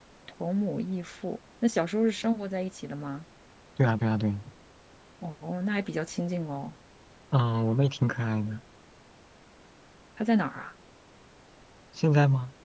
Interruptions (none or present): none